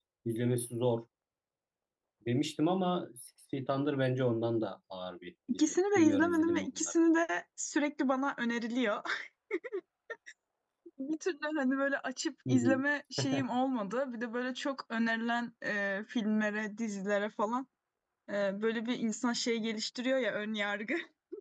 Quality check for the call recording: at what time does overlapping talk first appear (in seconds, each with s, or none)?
5.5 s